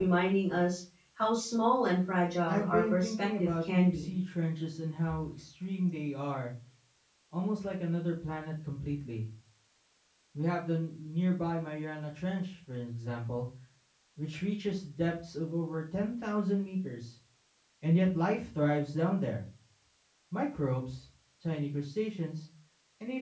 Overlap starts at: 2 s

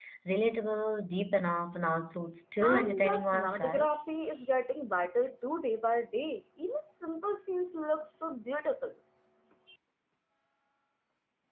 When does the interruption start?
3 s

